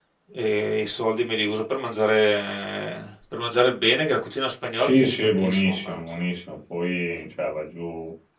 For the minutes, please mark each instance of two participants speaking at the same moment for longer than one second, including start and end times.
4.8-6.0

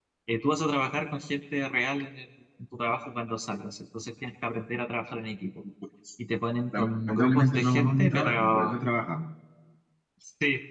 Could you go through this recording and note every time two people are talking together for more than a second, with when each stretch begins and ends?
6.7-8.9

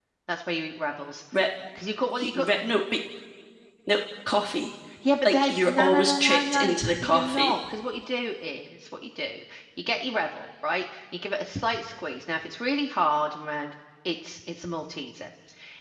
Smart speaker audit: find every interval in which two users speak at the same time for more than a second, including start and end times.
5.2-7.6

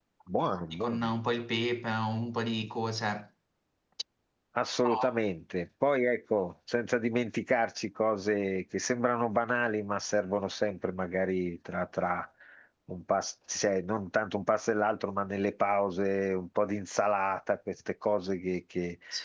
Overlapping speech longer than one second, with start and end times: none

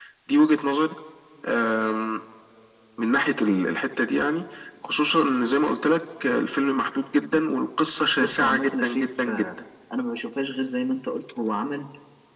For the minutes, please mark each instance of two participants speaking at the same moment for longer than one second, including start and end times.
8.2-9.5

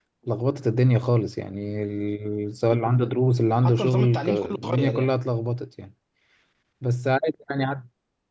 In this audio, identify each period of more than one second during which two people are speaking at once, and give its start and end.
3.6-5.2

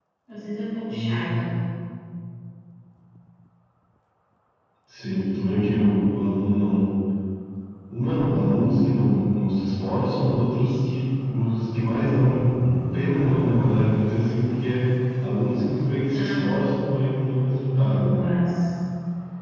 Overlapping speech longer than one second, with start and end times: none

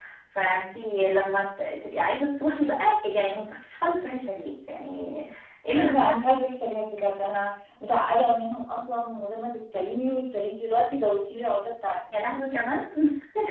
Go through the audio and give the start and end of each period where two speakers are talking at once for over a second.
none

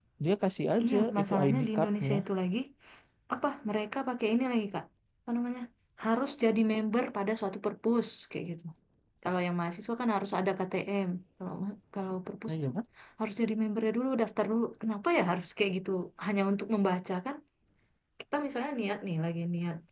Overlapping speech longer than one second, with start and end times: 0.8-2.2

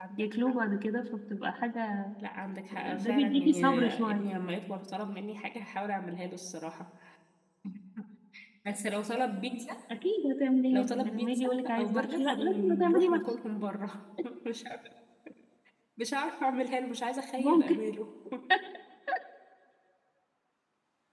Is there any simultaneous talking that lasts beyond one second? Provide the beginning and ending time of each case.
2.7-4.3, 10.7-13.2

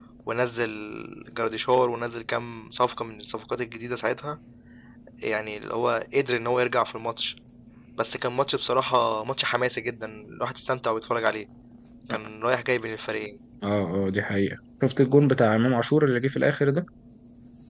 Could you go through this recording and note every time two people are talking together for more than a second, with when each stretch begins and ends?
none

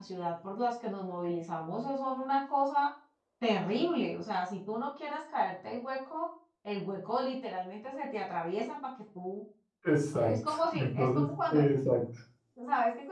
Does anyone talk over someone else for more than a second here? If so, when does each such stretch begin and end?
10.3-11.6

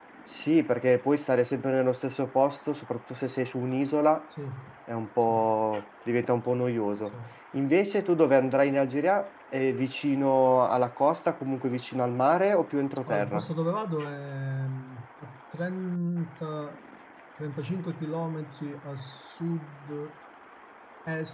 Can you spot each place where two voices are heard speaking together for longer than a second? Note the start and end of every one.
none

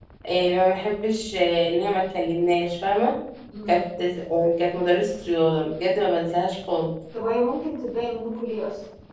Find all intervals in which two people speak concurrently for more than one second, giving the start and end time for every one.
none

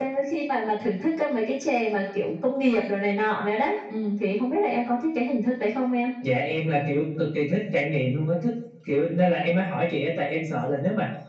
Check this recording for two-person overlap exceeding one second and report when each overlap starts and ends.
none

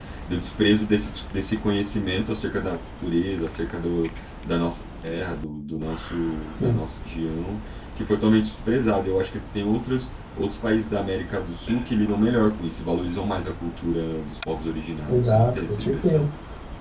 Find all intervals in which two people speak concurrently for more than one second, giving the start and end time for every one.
15.1-16.3

